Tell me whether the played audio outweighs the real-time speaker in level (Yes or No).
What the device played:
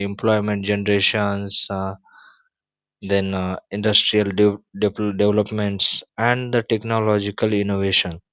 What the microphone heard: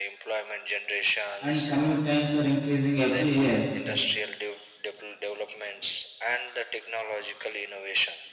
No